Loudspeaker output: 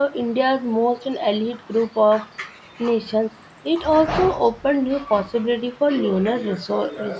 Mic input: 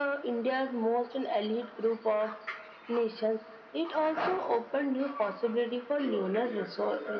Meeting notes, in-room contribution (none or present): none